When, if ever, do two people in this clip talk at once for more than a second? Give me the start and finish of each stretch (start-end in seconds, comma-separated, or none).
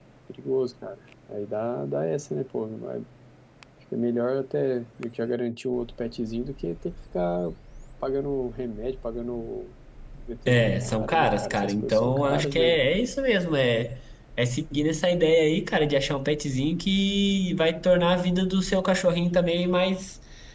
10.5-12.8